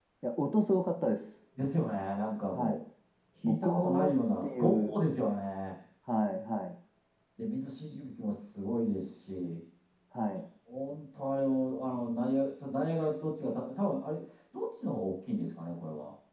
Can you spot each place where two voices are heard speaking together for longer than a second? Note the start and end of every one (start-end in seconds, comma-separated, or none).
3.4-5.0